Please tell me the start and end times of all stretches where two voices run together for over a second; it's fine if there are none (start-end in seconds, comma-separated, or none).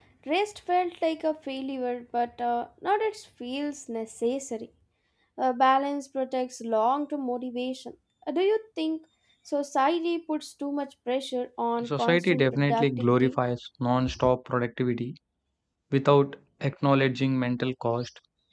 11.8-13.3